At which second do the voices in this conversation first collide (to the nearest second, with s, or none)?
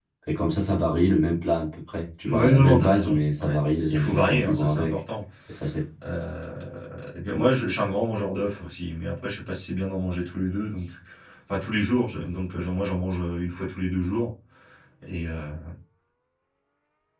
2 s